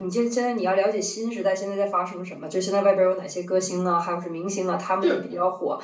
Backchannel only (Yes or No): Yes